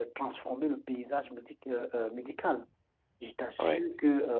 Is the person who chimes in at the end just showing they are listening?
Yes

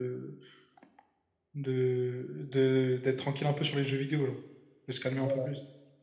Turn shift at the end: Yes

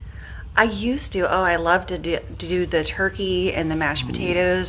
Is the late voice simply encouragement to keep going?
Yes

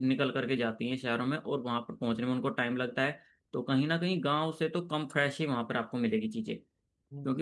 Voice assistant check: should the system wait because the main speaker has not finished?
No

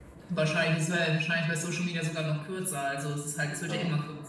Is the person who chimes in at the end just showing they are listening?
Yes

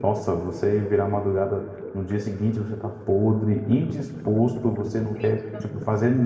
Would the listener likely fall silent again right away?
Yes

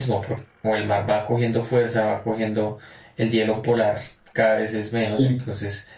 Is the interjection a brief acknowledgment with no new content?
Yes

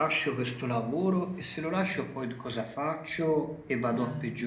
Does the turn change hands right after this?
No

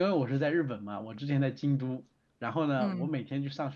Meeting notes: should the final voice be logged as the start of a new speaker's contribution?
No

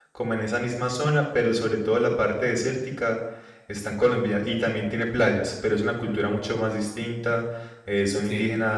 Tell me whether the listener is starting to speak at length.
No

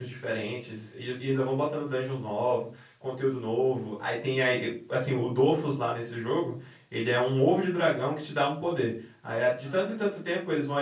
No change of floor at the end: Yes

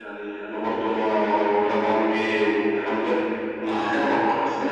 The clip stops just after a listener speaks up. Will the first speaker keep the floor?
Yes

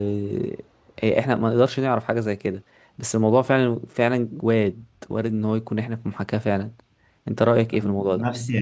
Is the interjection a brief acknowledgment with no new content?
No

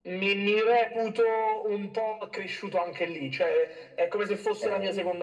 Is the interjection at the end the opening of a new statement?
No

